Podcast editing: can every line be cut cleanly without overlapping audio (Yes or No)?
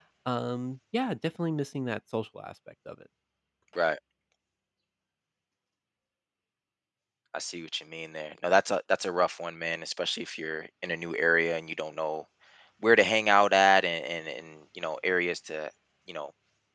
Yes